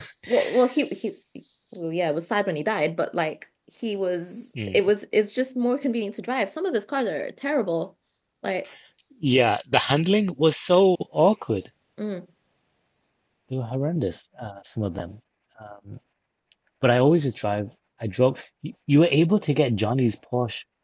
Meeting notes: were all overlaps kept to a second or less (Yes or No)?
Yes